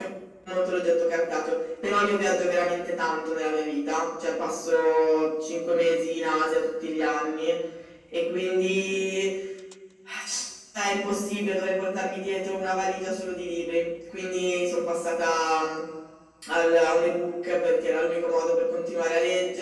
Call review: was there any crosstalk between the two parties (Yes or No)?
No